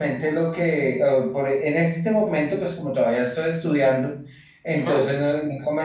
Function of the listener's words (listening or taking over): listening